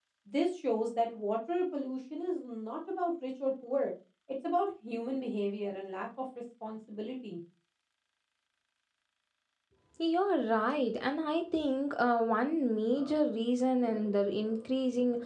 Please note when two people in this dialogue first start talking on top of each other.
none

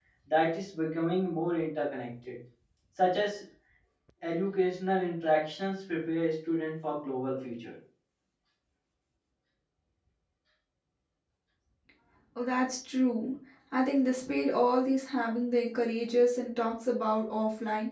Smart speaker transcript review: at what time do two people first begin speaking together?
none

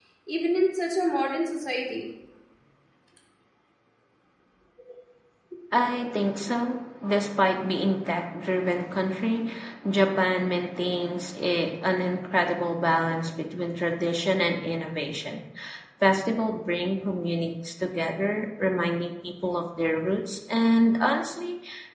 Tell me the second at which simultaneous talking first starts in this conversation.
none

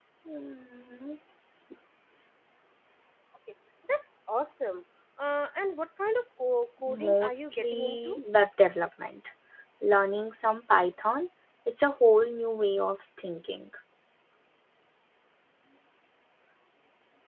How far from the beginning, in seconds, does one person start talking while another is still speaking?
6.9 s

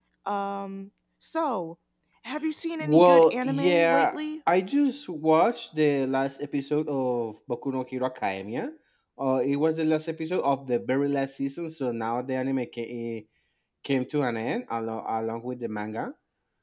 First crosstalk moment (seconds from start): 2.8 s

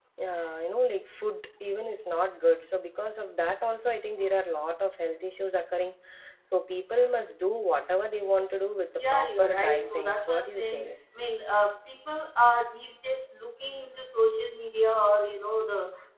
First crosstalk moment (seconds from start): 9.0 s

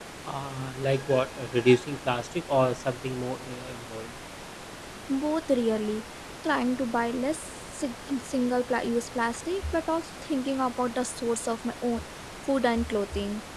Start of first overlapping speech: none

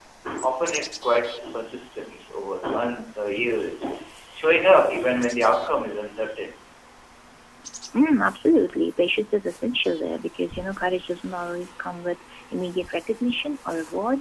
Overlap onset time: none

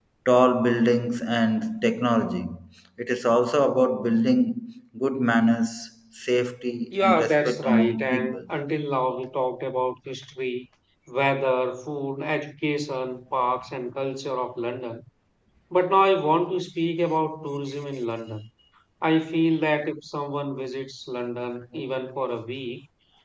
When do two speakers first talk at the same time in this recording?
6.9 s

